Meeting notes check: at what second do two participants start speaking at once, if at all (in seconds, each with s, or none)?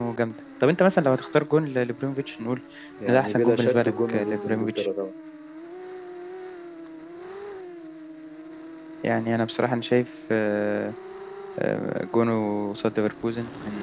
3.0 s